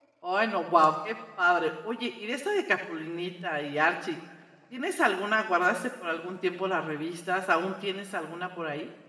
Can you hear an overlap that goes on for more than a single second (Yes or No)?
No